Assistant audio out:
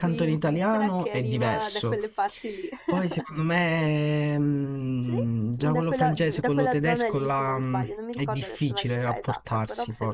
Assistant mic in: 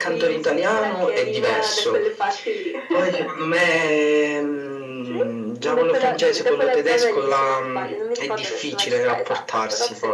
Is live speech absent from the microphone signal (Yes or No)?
Yes